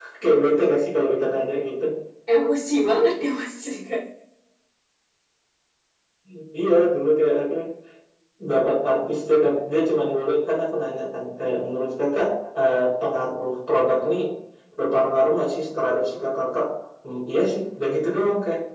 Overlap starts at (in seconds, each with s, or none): none